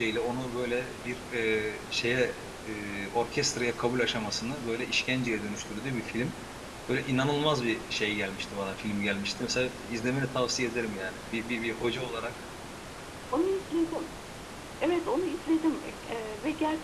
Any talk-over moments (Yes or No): No